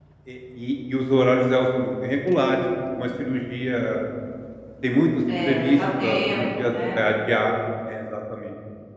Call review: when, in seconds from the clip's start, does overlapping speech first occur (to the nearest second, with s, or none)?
5 s